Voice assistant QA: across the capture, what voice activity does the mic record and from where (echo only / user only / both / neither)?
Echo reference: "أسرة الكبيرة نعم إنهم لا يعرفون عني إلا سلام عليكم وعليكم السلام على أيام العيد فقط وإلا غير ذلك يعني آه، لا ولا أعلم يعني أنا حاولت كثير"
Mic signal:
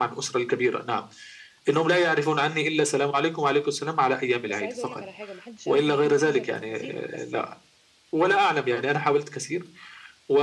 both